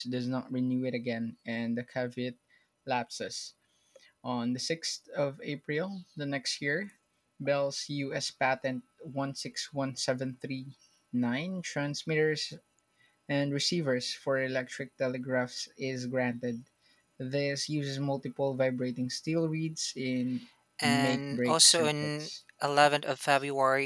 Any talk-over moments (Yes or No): Yes